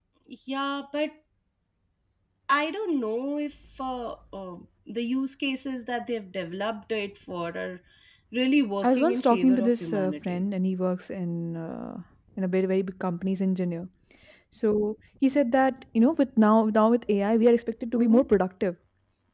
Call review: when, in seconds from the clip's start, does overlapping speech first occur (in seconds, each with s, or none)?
8.8 s